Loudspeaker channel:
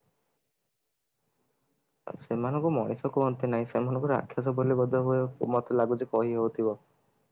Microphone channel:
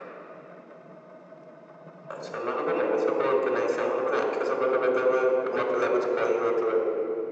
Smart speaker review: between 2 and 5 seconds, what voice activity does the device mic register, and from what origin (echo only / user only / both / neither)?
echo only